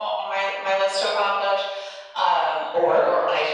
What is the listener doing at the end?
listening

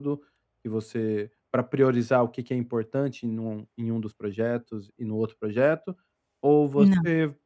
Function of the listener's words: listening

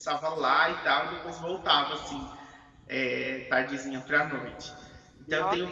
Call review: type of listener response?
taking over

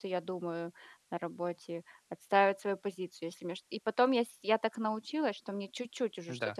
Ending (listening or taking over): listening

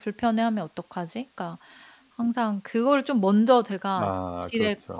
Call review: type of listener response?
listening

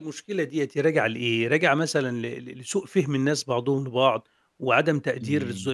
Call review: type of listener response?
listening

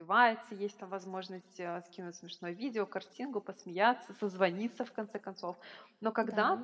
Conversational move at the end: listening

